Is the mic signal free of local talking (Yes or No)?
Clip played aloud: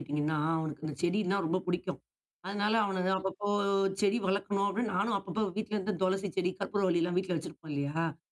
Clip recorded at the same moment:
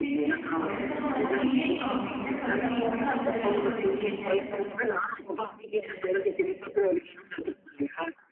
No